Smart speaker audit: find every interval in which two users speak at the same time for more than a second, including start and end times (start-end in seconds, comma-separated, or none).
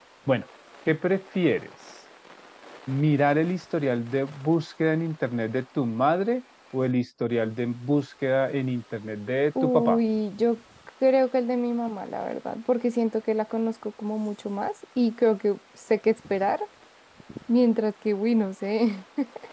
none